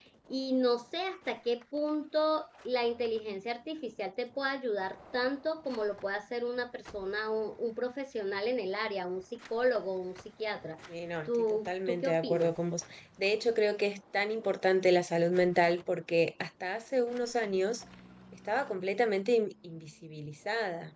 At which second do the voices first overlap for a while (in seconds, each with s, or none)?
11.3 s